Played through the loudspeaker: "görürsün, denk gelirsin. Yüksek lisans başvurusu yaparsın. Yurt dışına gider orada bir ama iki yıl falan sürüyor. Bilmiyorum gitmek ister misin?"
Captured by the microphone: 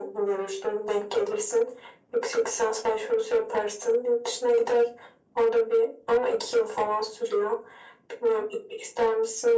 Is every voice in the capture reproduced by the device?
Yes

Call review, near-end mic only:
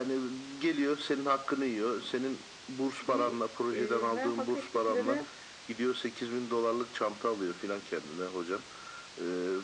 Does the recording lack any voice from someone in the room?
No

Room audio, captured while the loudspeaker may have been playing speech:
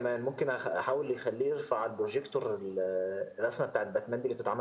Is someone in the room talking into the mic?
No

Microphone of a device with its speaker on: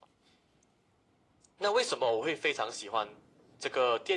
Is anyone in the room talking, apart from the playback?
No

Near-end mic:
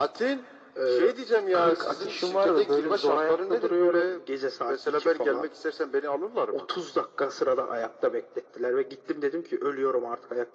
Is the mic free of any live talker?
Yes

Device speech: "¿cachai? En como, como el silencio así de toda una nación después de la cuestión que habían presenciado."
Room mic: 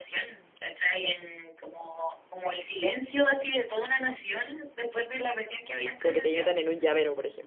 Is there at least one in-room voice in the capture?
Yes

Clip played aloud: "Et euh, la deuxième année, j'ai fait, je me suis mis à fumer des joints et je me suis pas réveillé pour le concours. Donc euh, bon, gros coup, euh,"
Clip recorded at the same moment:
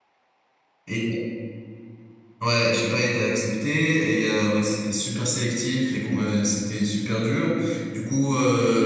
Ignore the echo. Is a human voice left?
Yes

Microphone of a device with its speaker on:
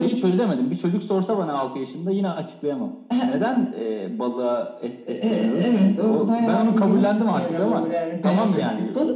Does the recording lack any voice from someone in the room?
Yes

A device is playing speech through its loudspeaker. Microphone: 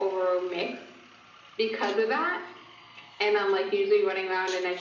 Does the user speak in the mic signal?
No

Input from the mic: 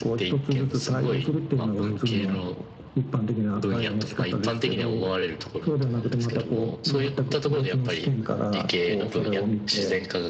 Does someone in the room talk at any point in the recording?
No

